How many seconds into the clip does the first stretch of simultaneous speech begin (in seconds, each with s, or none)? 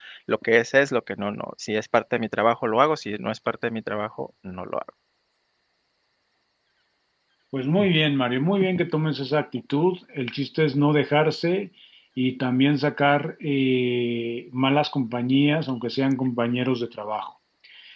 none